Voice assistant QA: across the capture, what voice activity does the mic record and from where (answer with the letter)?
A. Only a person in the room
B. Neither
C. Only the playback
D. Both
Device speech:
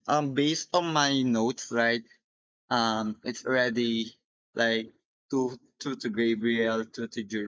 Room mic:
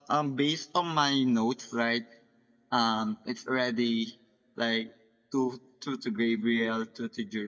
C